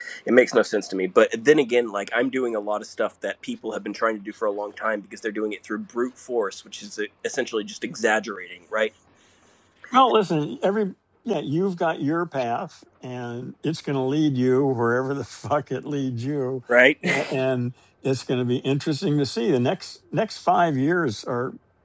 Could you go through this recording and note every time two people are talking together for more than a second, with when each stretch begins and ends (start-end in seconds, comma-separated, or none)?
none